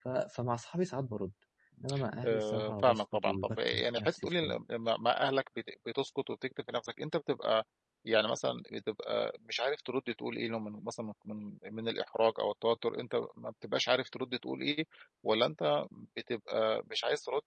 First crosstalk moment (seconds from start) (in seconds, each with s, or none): 2.2 s